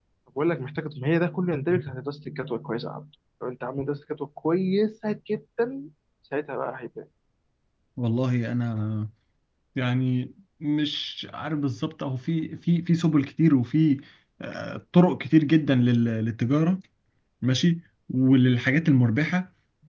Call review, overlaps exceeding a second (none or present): none